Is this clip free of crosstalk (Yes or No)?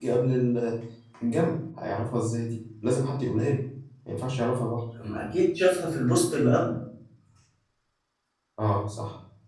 Yes